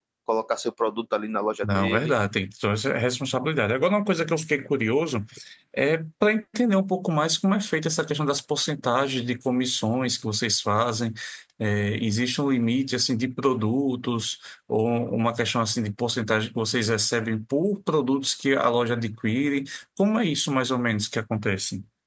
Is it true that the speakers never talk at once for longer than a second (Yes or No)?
Yes